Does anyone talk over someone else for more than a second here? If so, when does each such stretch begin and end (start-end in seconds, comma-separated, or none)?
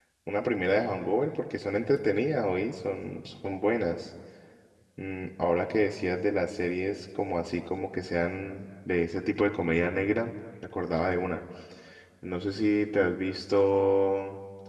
none